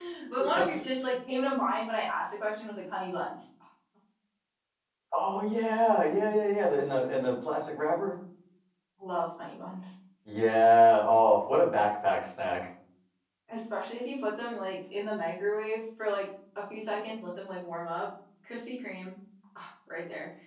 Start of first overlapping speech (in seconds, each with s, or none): none